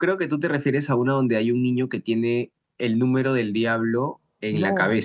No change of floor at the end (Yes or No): No